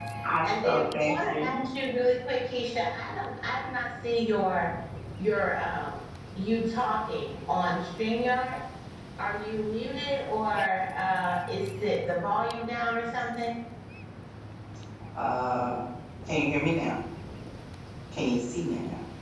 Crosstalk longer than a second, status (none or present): present